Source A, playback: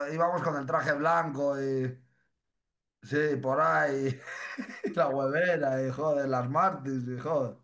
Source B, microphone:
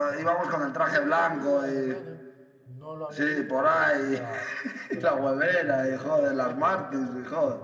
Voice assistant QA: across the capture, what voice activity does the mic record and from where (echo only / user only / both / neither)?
both